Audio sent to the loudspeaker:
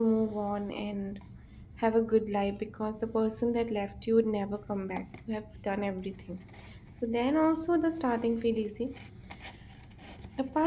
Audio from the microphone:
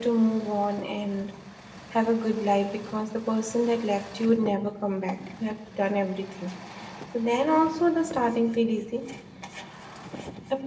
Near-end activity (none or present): none